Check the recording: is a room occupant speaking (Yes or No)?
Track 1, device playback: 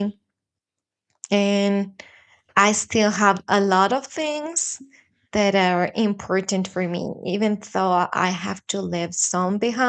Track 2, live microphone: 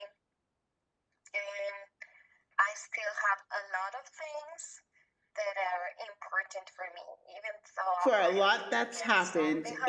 Yes